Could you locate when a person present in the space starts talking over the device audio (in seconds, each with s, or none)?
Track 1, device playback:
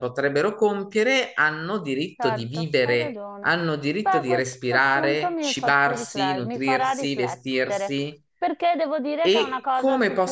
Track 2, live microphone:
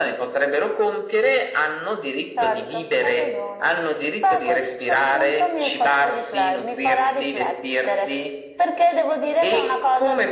none